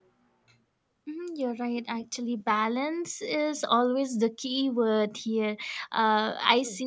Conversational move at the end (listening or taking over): listening